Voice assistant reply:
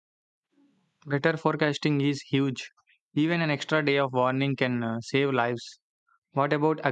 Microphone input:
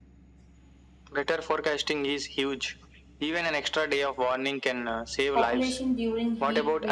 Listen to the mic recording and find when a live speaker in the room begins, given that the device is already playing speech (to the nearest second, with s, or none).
5 s